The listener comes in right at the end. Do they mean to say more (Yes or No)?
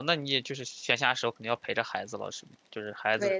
Yes